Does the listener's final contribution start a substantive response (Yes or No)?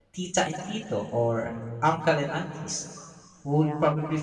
No